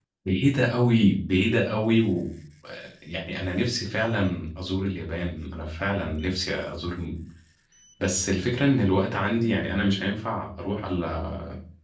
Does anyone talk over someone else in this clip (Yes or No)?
No